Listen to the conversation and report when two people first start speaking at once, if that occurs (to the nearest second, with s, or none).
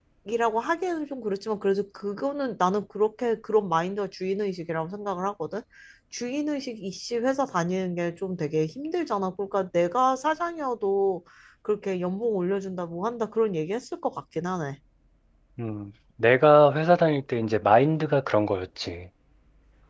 none